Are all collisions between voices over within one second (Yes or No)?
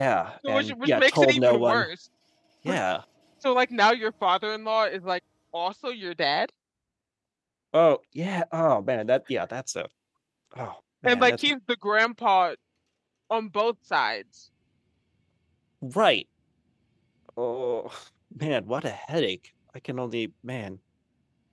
No